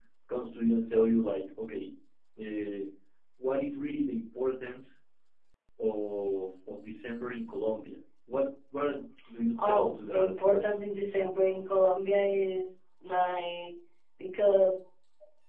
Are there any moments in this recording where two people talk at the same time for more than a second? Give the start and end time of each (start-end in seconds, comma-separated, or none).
9.6-10.8